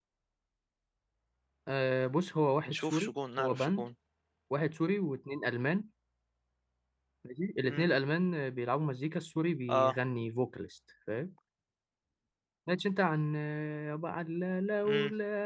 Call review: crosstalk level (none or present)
present